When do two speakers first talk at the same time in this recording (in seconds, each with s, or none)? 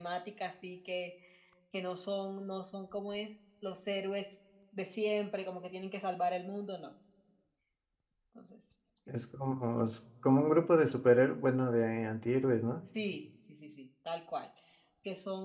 none